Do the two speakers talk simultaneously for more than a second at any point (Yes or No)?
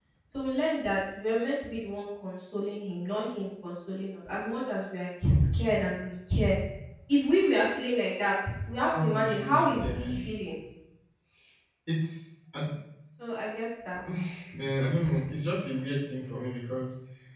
Yes